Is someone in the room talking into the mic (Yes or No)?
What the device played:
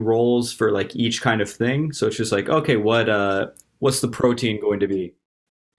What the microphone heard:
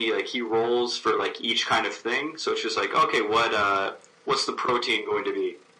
No